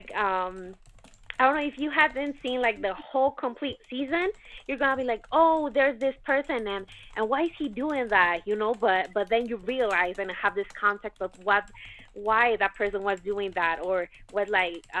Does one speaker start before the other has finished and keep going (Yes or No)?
No